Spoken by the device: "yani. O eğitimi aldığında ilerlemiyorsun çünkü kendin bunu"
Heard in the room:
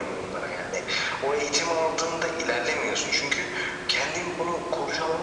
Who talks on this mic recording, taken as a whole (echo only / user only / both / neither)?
echo only